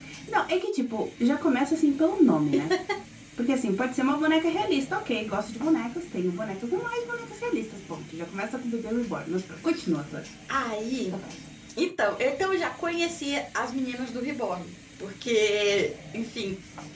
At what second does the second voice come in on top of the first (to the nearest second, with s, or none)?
none